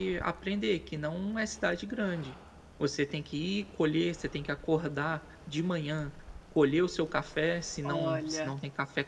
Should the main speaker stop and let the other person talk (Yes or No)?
No